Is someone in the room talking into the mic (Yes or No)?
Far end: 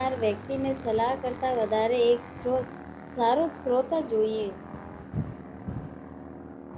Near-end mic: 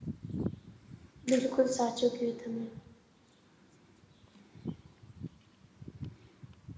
Yes